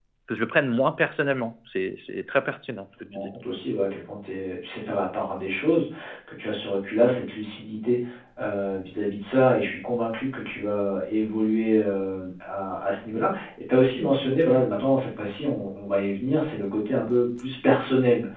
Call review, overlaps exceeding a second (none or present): none